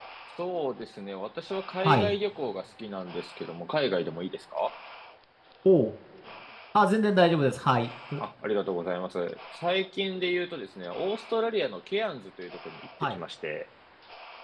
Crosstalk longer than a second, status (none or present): none